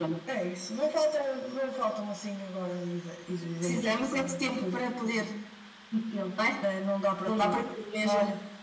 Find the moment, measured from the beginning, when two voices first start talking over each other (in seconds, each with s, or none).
3.6 s